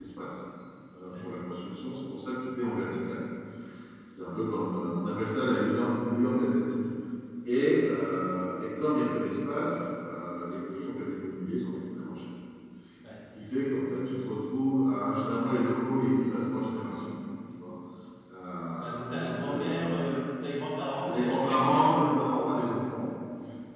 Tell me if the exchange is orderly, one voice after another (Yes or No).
No